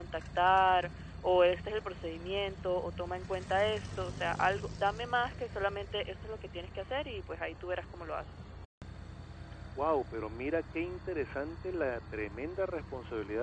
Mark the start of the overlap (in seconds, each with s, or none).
none